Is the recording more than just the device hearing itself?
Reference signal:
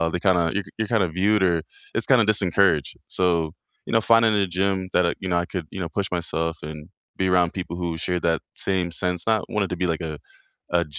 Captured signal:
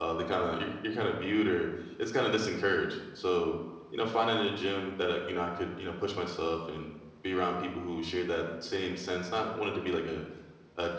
No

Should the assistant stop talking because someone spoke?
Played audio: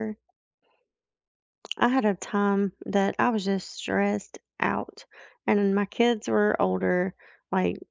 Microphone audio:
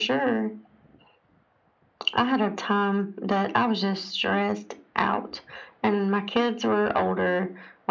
No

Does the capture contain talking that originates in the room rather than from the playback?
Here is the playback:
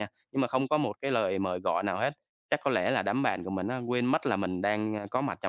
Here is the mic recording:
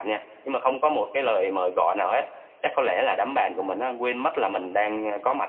No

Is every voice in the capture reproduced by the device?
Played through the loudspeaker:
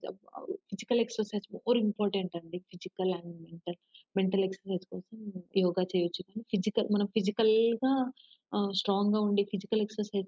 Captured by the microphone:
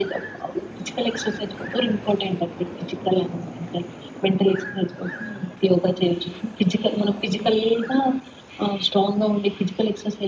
Yes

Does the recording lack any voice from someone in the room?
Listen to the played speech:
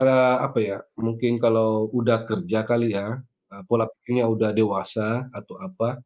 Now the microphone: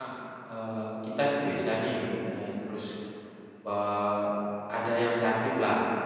No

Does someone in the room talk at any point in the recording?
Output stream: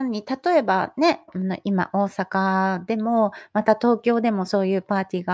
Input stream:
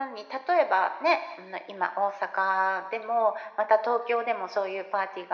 No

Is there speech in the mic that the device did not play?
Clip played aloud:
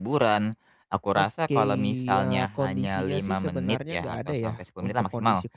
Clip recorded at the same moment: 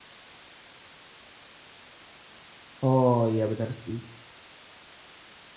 Yes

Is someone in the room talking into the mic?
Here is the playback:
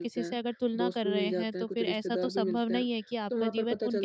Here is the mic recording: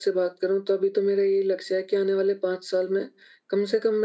Yes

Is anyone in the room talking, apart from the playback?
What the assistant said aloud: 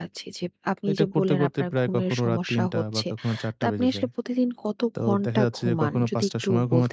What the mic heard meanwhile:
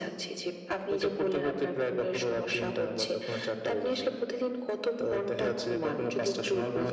No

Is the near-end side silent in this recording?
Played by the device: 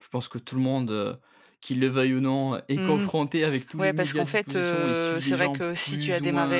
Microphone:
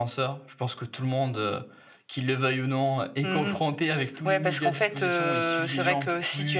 Yes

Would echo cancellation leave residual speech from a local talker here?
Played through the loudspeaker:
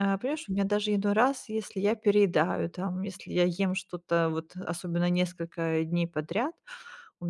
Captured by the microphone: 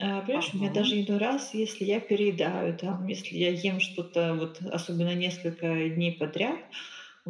Yes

